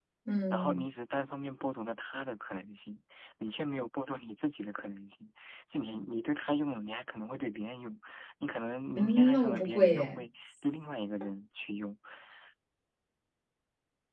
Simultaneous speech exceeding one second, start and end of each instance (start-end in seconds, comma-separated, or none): 8.9-10.2